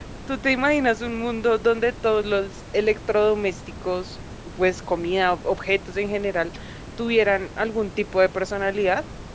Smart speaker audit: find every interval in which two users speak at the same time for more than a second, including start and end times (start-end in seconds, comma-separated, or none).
none